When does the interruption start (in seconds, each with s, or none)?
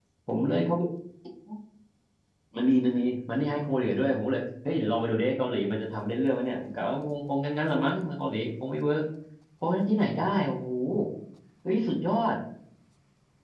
none